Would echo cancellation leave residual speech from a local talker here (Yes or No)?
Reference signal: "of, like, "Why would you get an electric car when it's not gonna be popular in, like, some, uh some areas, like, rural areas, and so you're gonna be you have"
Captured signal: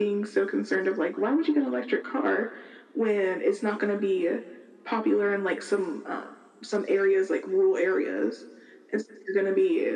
No